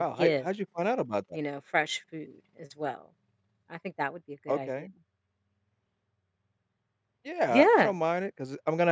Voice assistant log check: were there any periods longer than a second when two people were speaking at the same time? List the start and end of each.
none

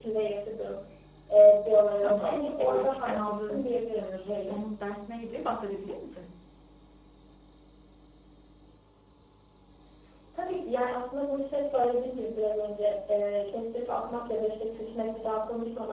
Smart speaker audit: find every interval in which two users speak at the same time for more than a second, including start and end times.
2.0-4.6

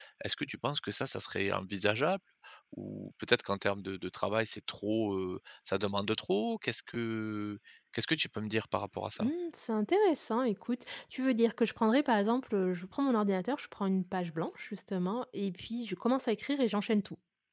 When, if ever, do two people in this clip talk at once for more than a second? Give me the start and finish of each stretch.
none

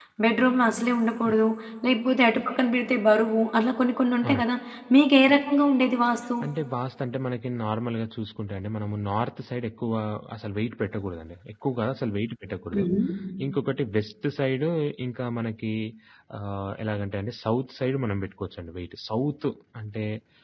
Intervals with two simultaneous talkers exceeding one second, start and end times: none

